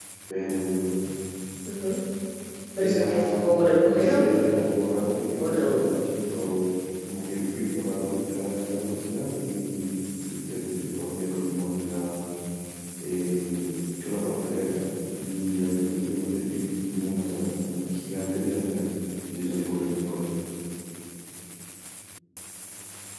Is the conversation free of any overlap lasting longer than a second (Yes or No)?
No